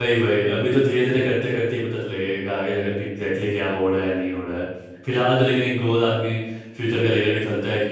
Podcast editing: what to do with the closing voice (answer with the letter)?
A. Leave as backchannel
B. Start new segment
A